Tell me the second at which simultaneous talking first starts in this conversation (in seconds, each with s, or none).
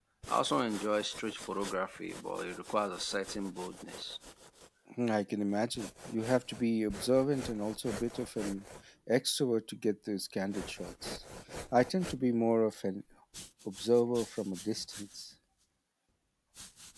none